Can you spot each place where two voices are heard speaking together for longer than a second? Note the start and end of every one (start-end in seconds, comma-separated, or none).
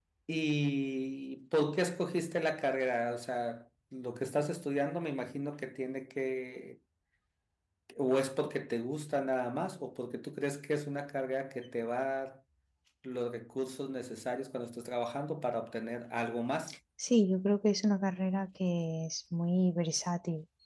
none